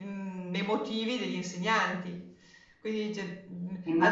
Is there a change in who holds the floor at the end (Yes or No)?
No